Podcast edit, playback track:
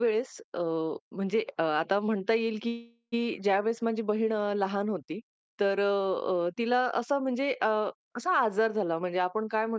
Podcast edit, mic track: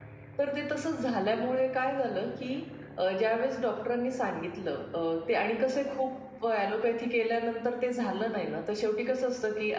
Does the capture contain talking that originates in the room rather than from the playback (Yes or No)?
Yes